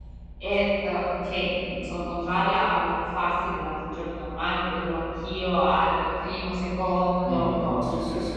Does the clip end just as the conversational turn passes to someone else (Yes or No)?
Yes